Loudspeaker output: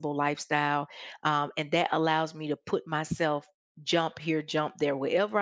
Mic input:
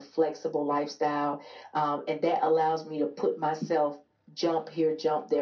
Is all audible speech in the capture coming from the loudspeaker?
Yes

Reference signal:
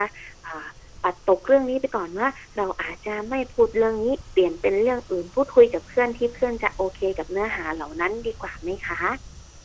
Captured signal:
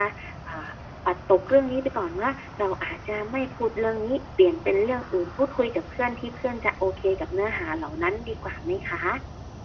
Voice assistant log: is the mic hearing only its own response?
Yes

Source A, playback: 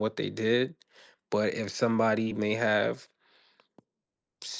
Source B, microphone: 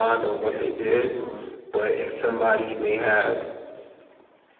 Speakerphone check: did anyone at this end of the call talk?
Yes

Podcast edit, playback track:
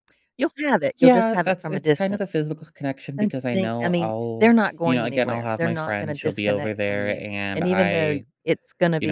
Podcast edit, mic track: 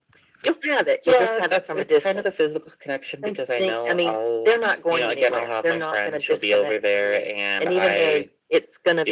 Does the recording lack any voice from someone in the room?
Yes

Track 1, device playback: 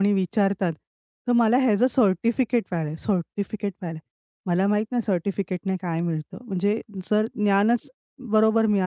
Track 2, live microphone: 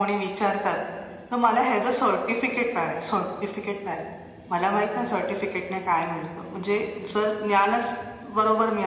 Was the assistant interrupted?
No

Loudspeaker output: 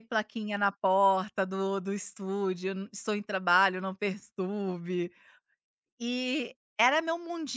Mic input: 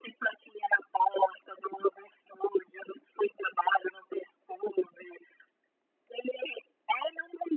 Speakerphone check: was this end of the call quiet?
Yes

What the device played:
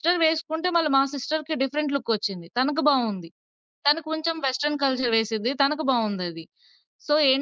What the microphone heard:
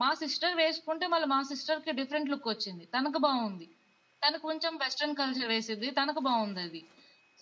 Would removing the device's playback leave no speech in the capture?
Yes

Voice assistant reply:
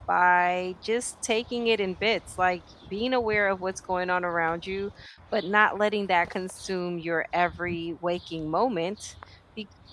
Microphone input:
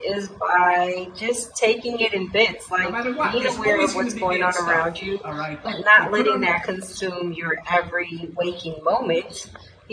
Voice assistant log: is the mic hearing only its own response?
No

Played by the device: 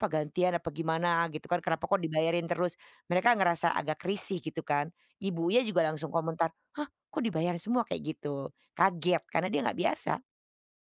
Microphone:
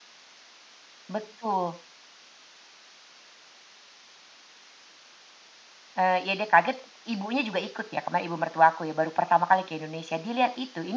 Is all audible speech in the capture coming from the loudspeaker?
No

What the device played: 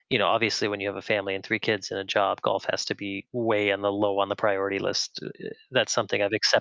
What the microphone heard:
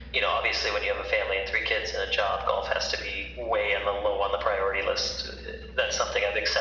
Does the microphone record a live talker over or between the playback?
No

